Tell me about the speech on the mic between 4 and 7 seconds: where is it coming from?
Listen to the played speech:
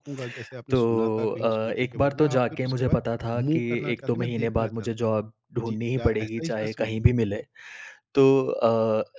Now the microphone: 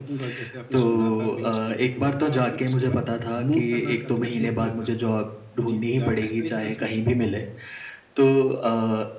echo only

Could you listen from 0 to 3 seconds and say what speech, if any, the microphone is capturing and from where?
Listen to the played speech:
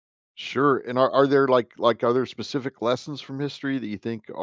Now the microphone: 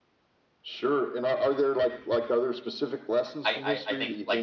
echo only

